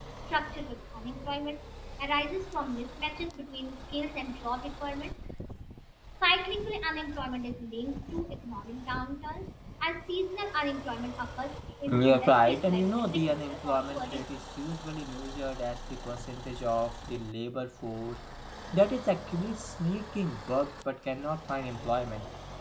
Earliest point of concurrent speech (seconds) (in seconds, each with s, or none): 11.9 s